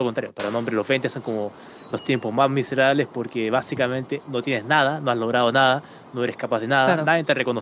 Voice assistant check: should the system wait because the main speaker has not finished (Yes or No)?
Yes